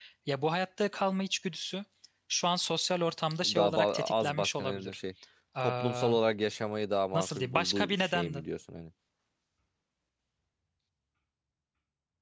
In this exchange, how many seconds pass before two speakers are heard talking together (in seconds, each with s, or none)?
3.4 s